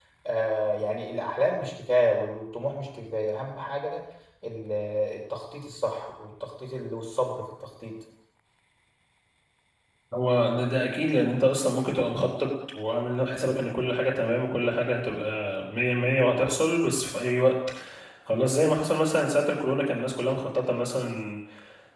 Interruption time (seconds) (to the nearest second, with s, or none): none